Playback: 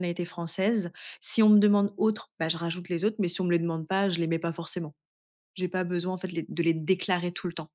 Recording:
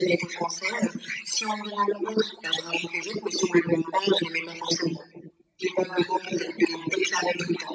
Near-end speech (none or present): none